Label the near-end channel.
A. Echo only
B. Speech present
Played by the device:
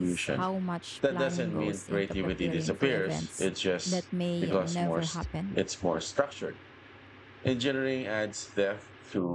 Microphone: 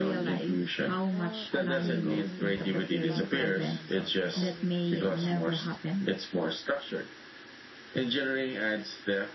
B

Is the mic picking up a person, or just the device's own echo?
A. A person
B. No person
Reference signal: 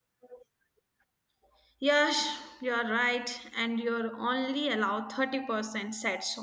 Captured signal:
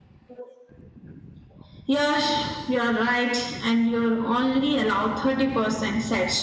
B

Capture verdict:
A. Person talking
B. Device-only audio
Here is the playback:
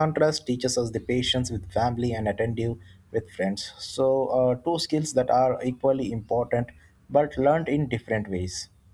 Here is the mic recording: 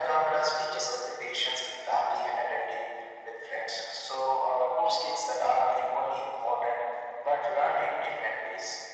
B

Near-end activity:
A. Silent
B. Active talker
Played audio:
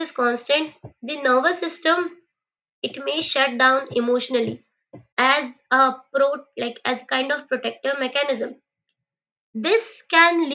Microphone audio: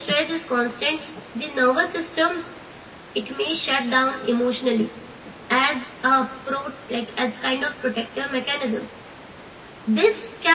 A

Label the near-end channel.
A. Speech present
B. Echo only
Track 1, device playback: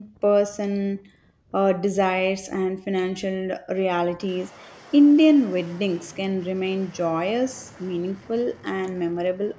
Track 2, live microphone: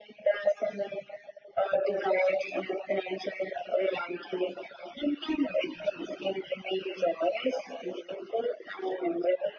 B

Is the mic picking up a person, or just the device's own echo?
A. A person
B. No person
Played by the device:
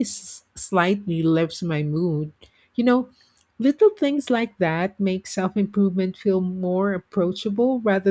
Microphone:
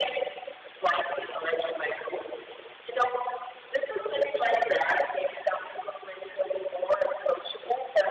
B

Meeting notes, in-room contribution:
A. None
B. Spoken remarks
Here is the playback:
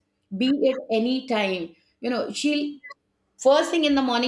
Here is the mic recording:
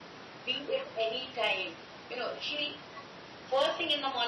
A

